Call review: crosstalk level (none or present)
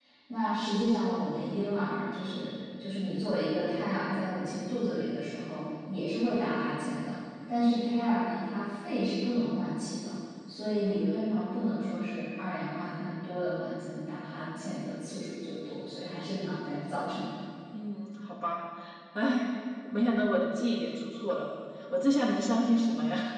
none